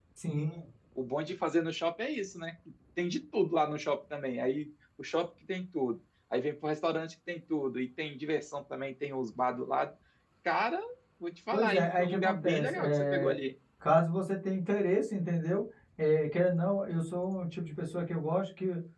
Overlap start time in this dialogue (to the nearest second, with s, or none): 12 s